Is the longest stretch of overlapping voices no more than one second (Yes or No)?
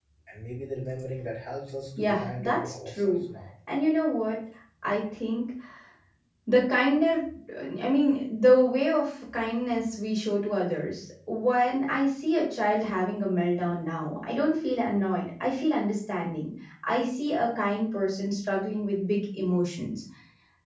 No